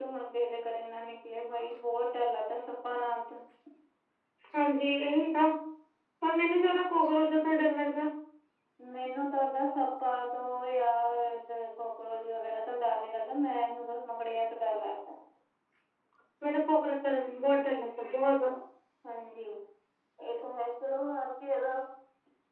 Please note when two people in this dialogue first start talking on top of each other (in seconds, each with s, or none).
none